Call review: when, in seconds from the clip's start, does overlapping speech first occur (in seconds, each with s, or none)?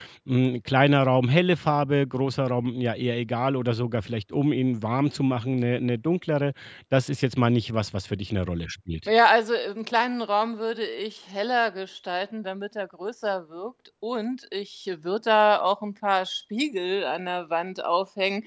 none